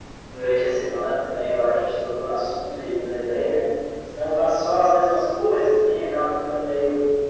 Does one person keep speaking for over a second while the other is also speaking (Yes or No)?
No